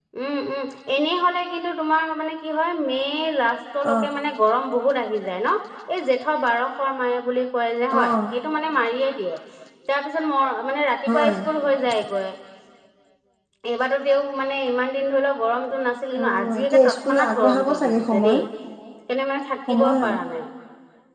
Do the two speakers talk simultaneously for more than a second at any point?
Yes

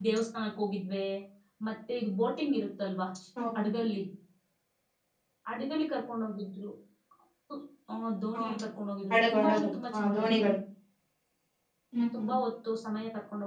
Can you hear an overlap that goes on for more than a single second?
Yes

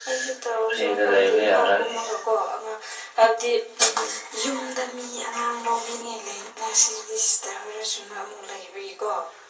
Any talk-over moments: Yes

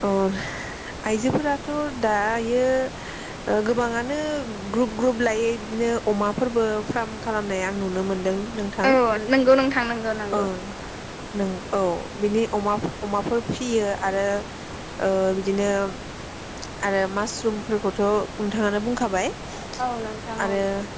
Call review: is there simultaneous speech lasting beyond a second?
No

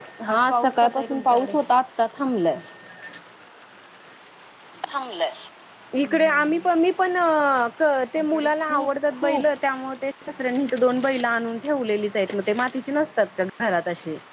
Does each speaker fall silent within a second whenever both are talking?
No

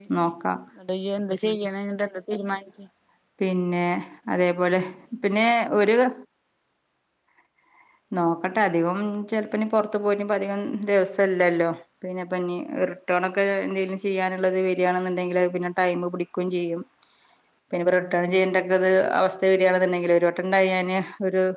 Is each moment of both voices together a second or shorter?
Yes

